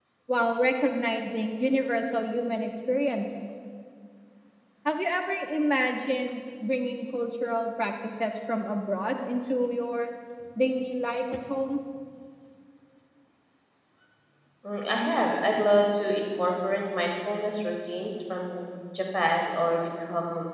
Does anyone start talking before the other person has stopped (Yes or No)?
No